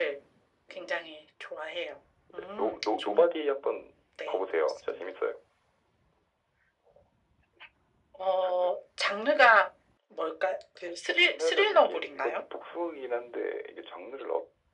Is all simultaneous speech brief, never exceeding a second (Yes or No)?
No